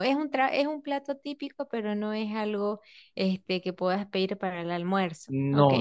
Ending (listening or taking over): taking over